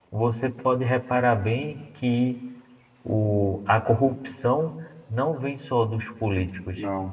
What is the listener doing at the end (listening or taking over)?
listening